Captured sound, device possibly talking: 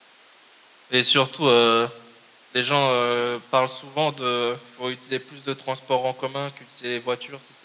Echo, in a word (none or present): none